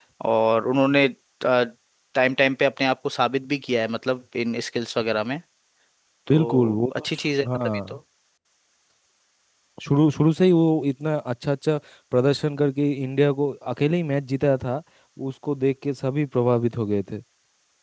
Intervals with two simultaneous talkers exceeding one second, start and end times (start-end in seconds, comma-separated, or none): 6.3-8.0